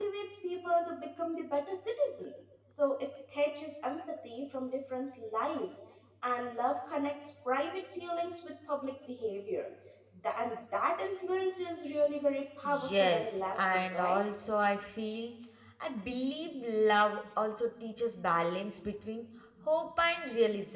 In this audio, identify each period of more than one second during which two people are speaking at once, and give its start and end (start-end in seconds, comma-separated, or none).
12.6-14.2